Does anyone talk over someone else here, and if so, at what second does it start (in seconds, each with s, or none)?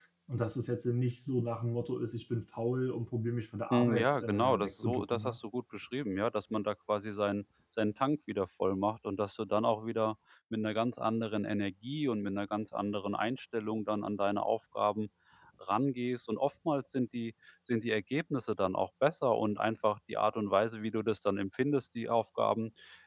3.7 s